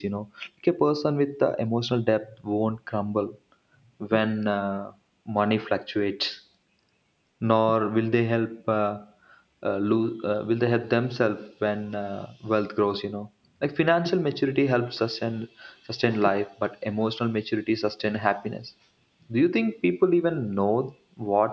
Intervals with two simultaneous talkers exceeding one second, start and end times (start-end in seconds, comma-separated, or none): none